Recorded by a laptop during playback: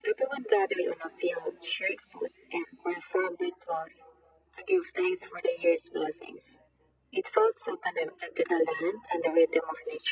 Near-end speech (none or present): none